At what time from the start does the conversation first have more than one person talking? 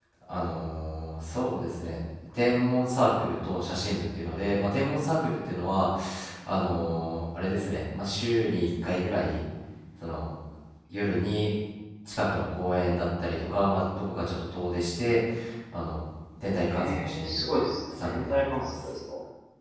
17 s

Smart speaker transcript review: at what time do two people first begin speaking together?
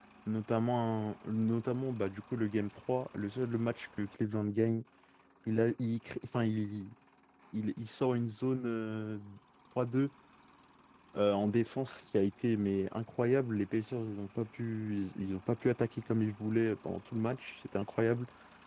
none

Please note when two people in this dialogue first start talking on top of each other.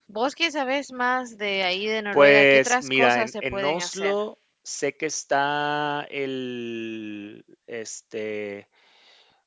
2 s

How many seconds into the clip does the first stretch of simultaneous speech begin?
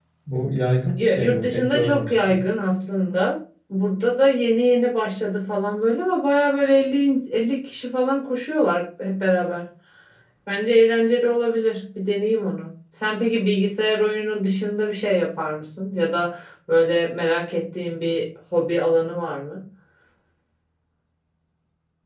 1 s

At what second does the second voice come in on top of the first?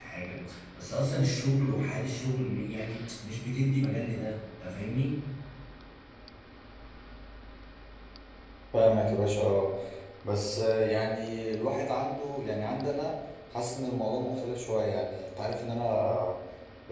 none

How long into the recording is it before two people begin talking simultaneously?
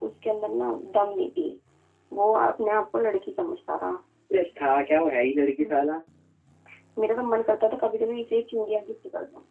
none

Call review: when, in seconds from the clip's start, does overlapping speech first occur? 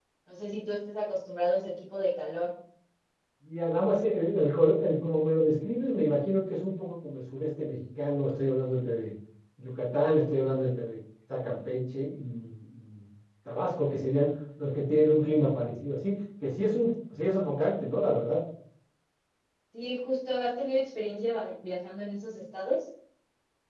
none

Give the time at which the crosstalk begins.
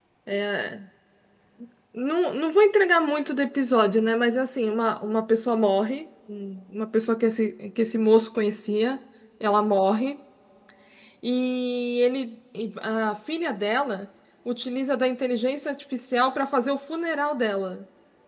none

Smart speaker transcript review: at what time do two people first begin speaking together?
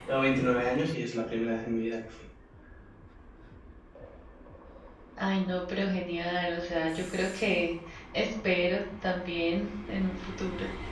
none

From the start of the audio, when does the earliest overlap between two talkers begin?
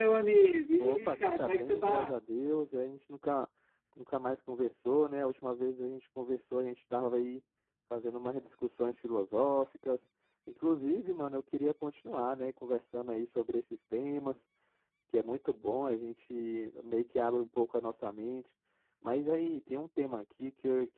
1 s

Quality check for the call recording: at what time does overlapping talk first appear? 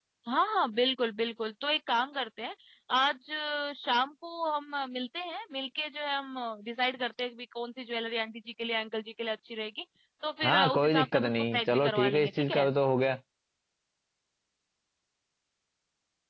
10 s

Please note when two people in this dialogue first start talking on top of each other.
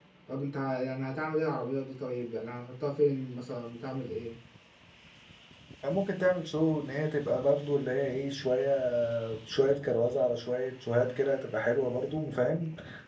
none

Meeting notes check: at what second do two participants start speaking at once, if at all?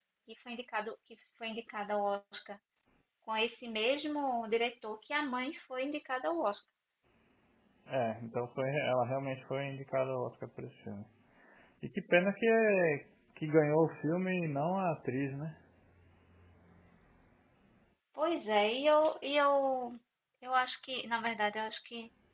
none

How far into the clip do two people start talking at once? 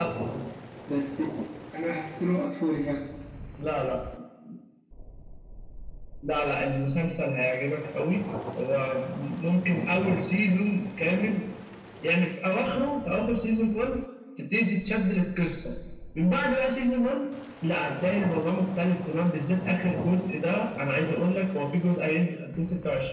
none

